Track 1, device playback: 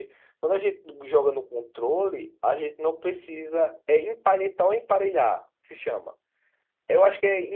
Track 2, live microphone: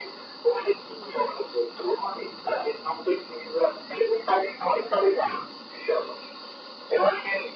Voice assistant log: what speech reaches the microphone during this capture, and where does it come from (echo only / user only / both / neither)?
echo only